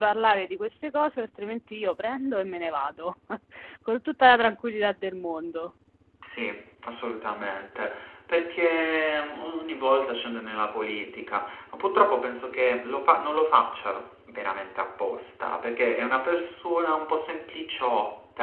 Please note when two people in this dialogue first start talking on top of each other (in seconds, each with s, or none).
none